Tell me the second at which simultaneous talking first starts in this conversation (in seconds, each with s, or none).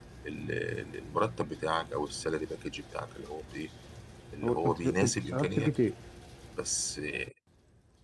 4.4 s